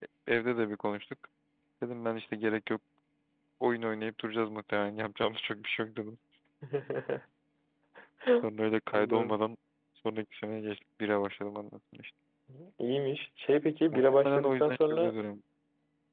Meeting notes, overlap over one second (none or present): present